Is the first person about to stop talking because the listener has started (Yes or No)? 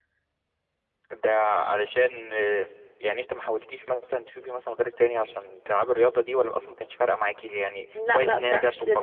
Yes